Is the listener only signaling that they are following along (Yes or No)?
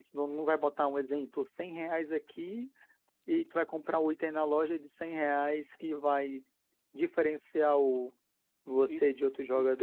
No